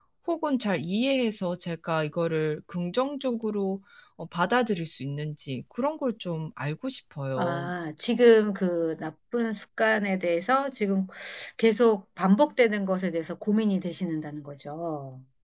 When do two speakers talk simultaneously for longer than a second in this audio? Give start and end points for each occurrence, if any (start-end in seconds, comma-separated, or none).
none